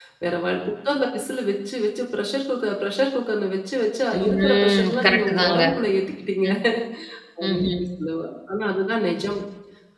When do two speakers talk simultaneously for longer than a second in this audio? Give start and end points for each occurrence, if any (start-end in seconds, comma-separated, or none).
4.2-5.6